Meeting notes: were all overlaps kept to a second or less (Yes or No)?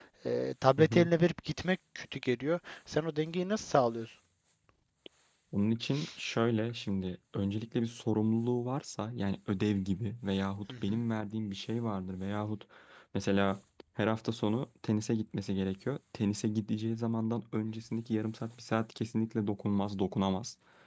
Yes